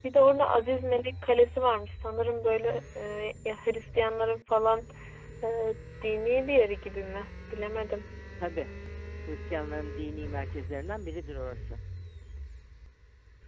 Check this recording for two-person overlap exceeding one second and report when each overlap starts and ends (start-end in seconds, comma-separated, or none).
none